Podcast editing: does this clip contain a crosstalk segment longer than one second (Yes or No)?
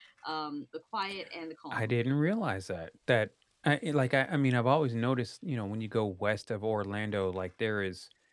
No